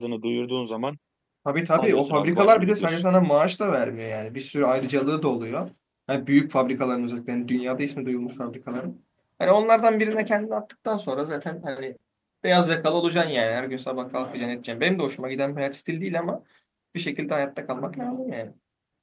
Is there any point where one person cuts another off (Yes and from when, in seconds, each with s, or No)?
Yes, from 1.8 s